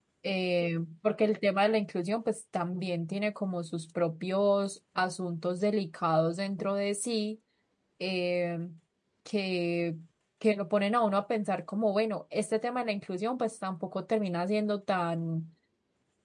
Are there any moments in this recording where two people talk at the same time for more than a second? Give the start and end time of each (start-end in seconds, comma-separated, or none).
none